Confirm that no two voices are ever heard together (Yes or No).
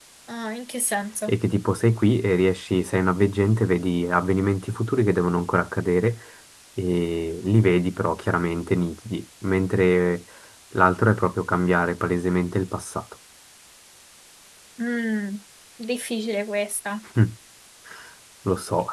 Yes